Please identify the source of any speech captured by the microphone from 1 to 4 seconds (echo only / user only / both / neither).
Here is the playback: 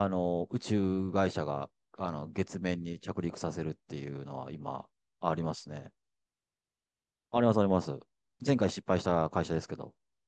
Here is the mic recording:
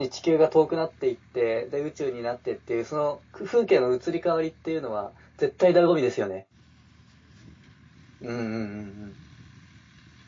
user only